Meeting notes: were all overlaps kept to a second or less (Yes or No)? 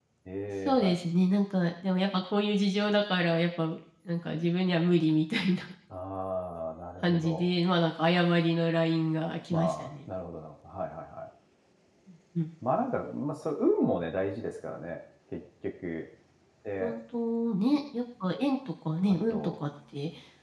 Yes